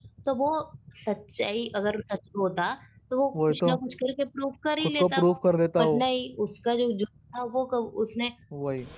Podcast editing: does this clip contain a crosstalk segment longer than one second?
No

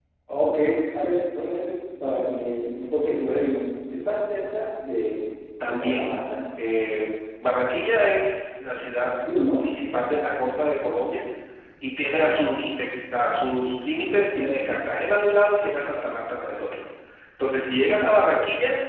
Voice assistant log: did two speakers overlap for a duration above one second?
No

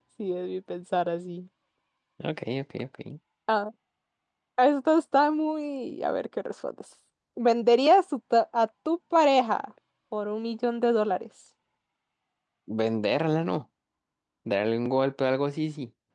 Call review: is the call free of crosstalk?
Yes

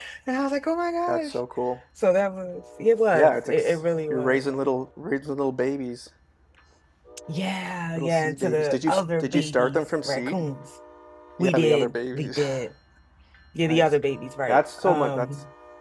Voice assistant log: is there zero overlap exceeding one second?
No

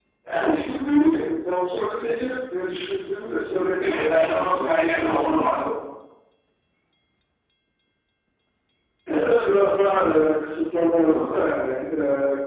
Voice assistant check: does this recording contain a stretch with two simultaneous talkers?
Yes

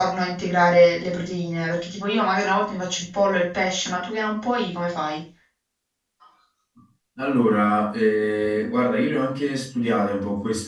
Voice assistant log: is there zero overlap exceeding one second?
Yes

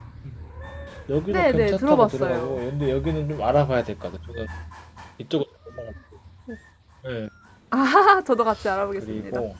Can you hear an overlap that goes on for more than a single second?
Yes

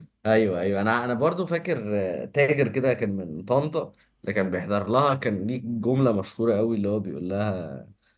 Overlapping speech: No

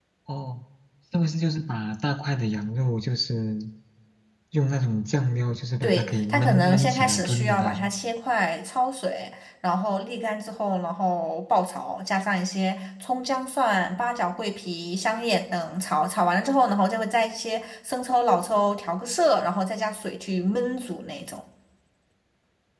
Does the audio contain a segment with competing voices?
Yes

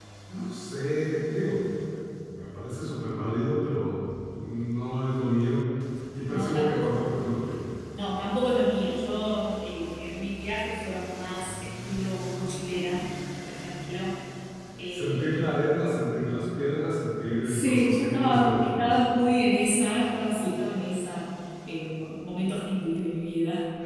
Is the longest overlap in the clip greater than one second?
Yes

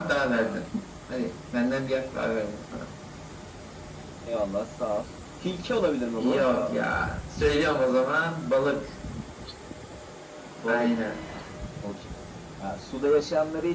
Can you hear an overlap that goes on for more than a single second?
No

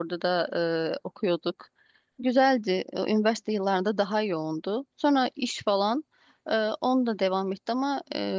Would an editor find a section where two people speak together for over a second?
No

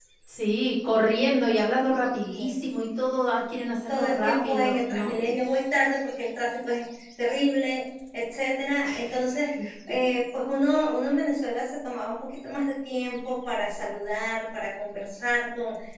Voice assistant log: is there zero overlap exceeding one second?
No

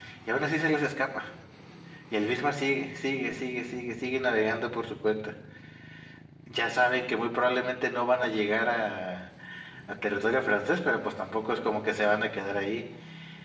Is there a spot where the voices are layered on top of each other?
No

